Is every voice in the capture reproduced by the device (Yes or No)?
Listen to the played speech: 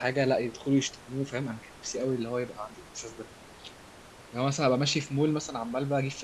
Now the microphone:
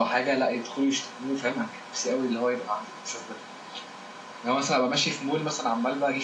Yes